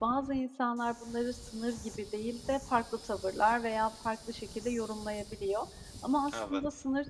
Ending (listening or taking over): listening